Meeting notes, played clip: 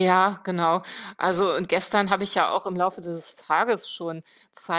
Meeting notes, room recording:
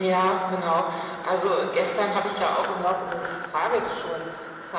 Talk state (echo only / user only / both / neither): echo only